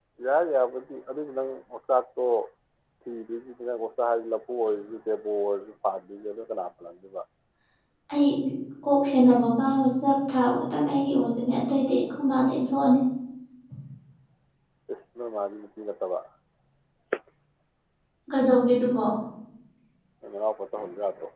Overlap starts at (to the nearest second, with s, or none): none